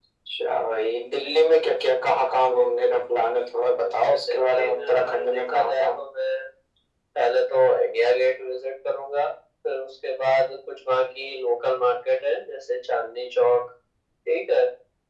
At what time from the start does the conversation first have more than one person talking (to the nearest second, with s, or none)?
4 s